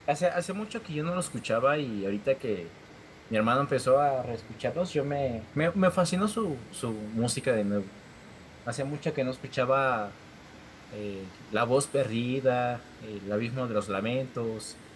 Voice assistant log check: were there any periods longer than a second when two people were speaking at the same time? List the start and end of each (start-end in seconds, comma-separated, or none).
none